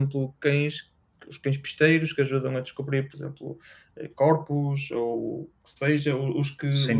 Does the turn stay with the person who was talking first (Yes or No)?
Yes